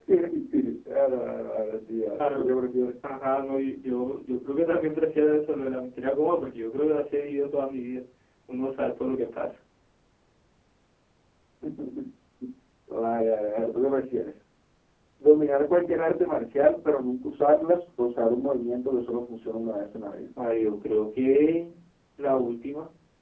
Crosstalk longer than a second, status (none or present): none